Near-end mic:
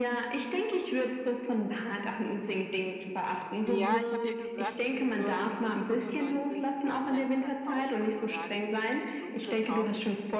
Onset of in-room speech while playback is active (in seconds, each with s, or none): 3.7 s